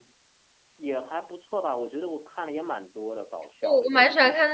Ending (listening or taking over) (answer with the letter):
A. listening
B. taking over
B